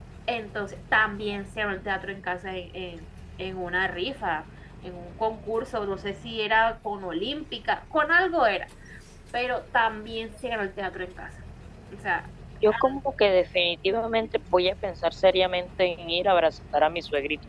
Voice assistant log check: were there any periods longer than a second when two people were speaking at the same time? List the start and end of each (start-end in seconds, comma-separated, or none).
none